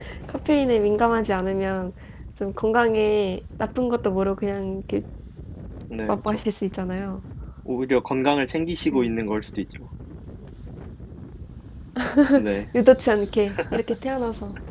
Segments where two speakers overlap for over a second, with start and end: none

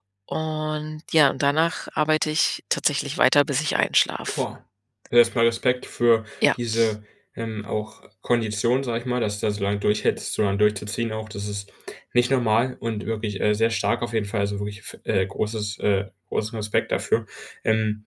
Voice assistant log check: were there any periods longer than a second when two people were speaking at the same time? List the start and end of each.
none

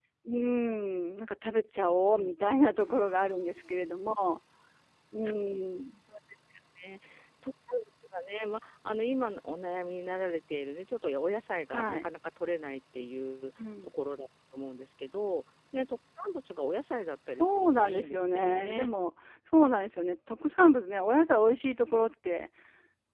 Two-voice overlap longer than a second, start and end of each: 17.4-18.9

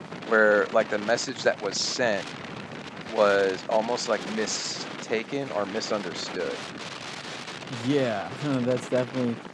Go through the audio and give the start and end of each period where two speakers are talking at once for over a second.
none

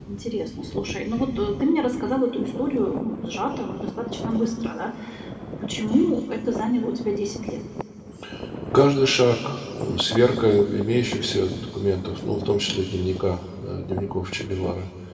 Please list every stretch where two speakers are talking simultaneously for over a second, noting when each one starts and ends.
none

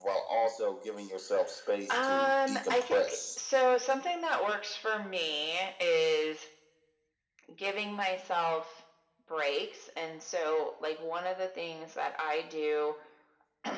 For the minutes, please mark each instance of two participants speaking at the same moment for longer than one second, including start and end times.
1.9-3.2

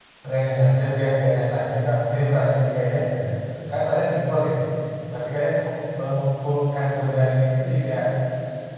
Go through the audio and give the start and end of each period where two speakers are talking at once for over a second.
none

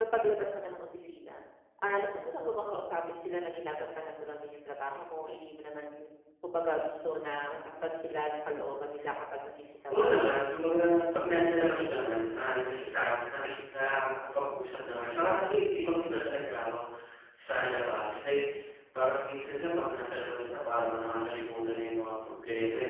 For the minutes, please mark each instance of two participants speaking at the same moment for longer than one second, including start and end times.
none

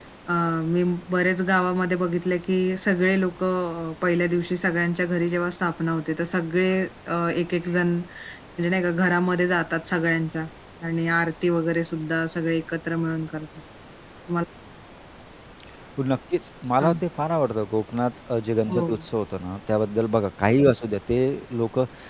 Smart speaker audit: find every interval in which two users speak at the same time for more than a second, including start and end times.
none

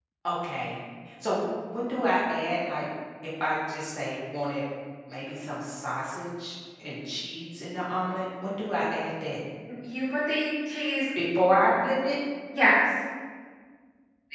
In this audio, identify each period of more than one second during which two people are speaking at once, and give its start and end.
none

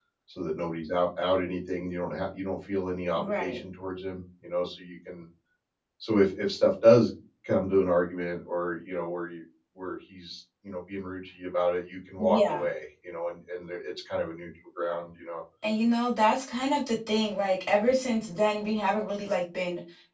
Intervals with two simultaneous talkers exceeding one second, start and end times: none

